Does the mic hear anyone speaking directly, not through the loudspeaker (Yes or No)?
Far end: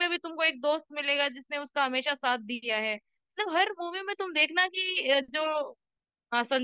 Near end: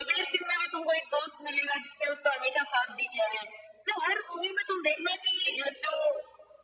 No